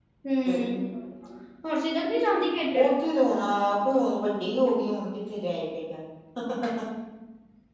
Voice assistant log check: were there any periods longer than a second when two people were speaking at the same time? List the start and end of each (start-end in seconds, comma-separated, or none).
none